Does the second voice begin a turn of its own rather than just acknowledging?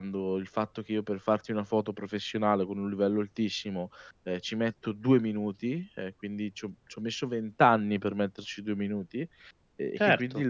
No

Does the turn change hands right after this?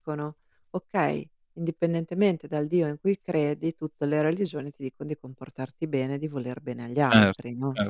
Yes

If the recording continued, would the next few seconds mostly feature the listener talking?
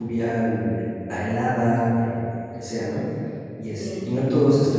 No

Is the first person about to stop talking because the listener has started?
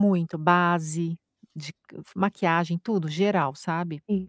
Yes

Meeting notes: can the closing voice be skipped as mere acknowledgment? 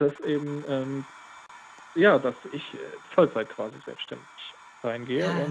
No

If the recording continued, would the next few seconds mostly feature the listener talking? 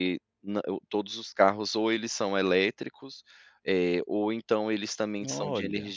No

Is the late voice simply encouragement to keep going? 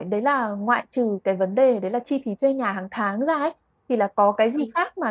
Yes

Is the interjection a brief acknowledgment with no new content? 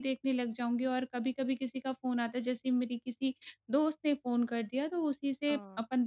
Yes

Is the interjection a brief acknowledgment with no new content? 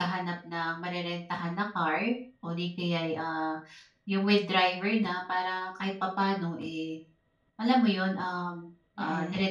Yes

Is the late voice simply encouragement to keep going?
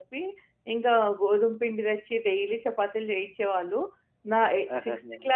Yes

